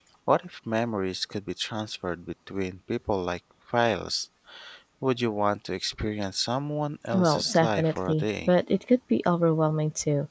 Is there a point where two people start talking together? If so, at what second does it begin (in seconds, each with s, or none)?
7.1 s